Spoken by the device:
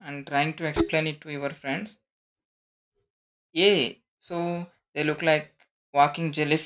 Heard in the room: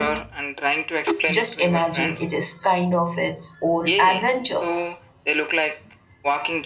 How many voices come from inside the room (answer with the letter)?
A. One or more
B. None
A